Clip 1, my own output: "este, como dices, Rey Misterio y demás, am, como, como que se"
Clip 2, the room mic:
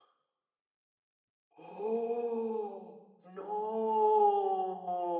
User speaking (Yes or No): Yes